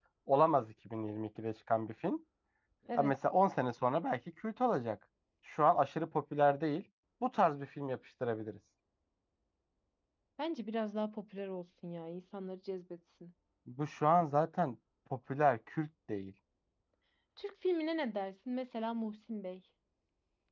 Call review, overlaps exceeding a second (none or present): none